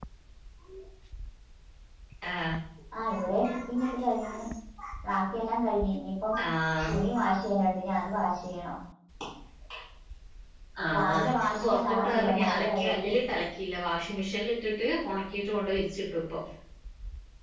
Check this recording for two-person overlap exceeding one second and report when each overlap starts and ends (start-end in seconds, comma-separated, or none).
10.9-13.1